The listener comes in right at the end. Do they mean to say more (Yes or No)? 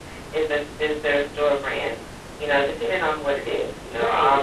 Yes